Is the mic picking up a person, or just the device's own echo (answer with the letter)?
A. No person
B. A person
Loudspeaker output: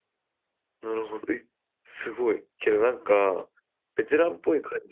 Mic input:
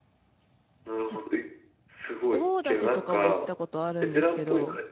B